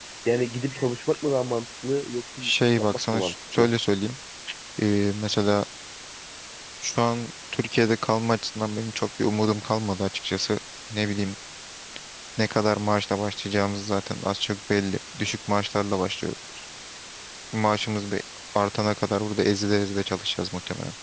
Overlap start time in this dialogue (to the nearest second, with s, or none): 2 s